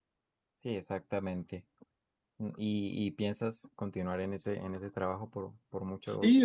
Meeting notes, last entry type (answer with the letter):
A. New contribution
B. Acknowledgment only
A